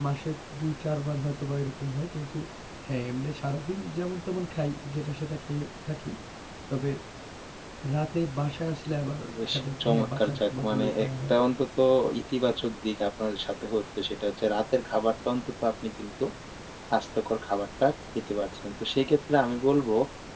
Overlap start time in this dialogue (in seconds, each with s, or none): 9.3 s